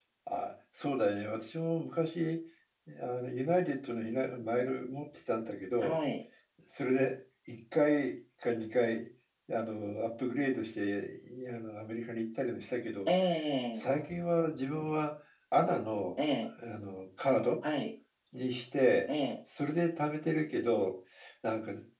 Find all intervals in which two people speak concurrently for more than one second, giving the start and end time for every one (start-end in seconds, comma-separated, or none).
none